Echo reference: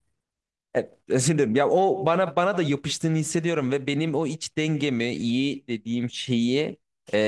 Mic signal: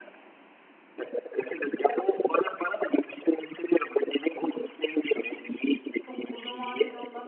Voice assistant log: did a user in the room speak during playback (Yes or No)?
Yes